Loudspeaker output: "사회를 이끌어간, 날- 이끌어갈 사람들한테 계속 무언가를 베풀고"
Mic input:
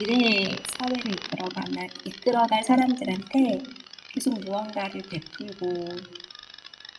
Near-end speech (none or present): none